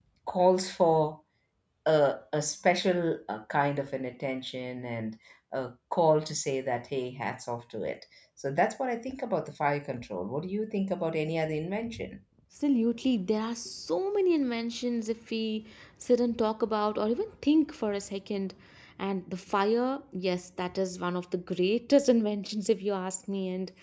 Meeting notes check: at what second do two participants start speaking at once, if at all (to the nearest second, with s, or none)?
none